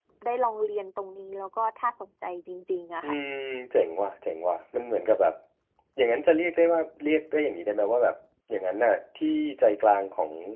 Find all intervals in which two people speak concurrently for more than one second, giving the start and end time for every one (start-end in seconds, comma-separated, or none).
none